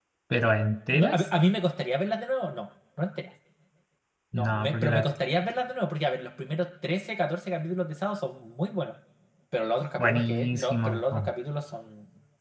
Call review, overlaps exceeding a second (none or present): present